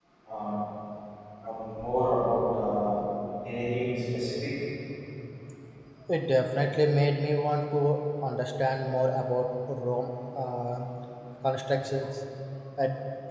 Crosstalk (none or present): none